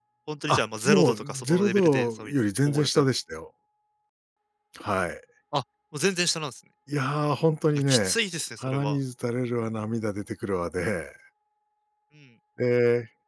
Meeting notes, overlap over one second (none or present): present